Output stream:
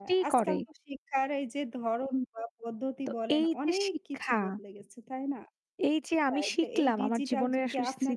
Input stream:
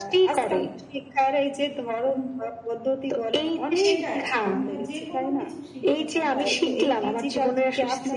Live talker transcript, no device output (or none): সেটাই। আমরা যে কোনো কিছু শিখতে পারি যে কোনো জায়গা থেকে।